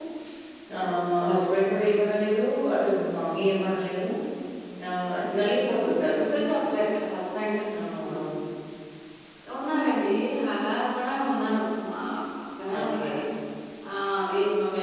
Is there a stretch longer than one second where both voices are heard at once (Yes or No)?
No